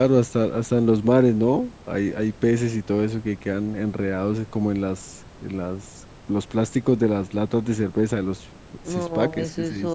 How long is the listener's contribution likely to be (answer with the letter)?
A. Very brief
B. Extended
B